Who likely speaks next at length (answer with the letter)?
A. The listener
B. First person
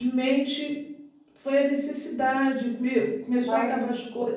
B